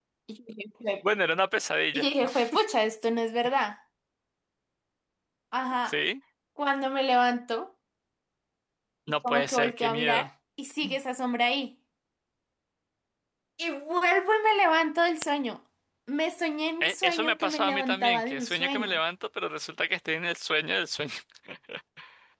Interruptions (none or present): present